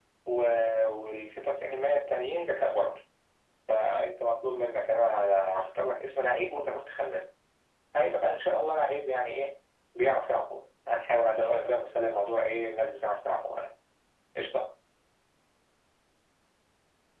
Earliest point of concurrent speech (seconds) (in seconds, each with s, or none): none